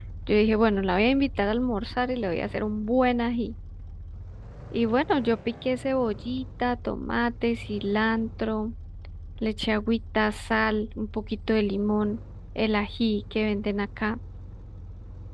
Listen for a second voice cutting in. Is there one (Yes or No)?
No